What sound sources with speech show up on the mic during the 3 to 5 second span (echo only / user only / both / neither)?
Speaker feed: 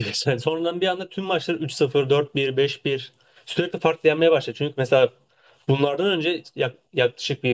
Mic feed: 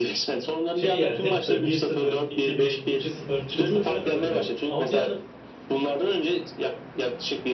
both